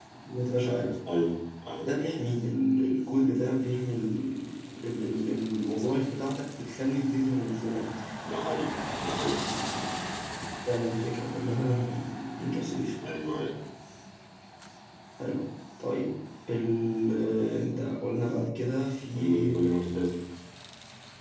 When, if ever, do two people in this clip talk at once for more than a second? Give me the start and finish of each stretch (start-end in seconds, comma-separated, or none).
none